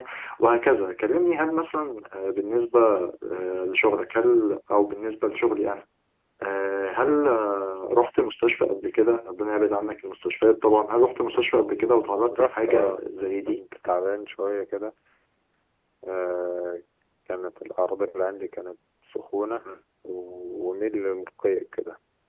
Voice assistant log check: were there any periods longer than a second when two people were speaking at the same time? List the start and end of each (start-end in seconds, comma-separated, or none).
12.3-13.6